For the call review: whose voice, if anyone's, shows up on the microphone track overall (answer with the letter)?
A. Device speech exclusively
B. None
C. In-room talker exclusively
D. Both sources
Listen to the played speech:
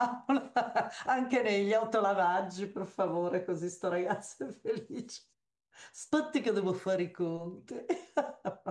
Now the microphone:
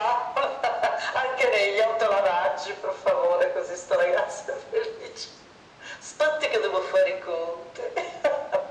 A